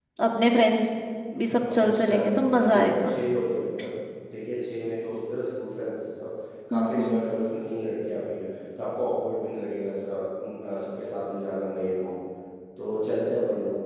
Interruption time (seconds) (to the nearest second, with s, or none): 2 s